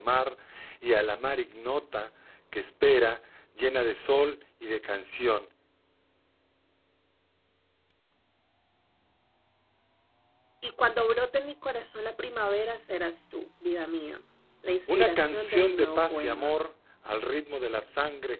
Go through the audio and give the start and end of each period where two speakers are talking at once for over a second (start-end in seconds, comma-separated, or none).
14.9-16.6